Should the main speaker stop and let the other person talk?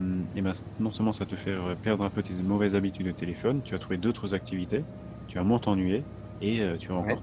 No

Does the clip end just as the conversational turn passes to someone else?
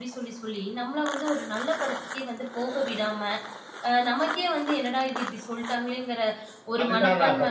Yes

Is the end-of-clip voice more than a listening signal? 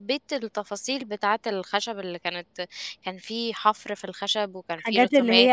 Yes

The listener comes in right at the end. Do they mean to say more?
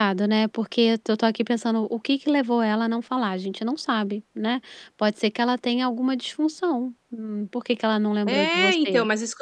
Yes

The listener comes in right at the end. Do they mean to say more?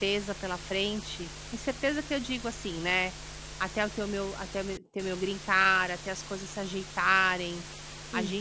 No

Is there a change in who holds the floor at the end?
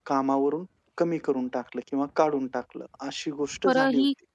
Yes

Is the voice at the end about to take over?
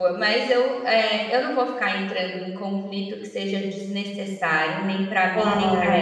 Yes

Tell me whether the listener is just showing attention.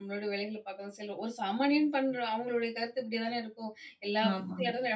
Yes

